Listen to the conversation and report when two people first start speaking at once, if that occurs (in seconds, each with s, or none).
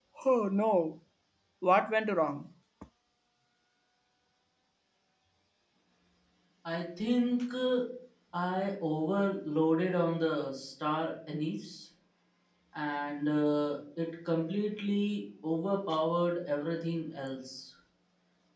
none